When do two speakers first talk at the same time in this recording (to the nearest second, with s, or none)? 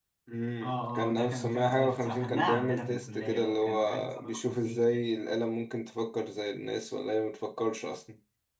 1 s